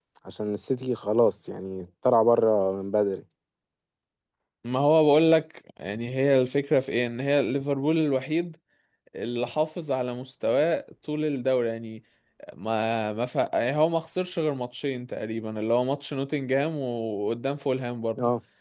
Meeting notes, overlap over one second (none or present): none